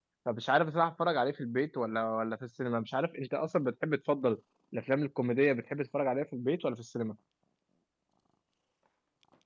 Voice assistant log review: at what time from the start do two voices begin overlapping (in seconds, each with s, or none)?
none